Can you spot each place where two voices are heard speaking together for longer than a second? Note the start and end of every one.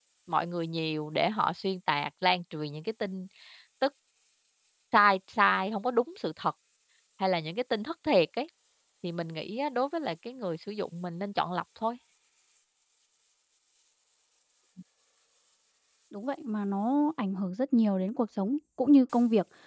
none

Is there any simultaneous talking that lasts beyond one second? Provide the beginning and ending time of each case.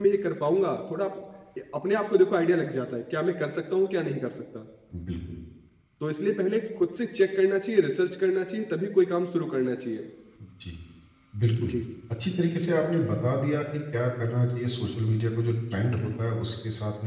none

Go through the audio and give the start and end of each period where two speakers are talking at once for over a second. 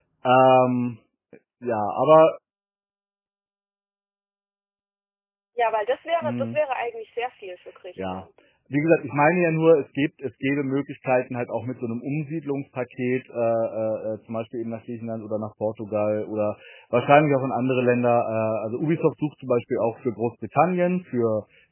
none

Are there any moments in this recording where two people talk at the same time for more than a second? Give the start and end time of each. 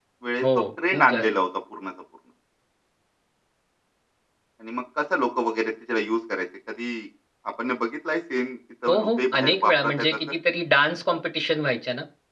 8.9-10.2

